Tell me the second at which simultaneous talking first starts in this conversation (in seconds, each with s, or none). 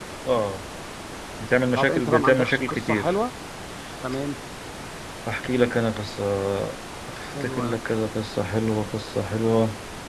1.7 s